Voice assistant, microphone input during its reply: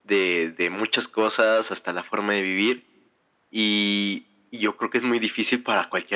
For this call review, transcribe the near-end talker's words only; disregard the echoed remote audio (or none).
none